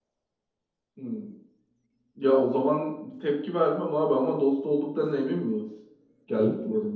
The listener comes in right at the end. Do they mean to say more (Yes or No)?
Yes